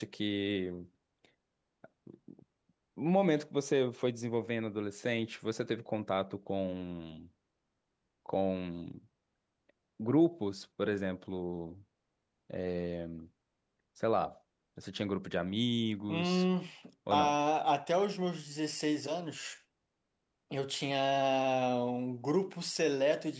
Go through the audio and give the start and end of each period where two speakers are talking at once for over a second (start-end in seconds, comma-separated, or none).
none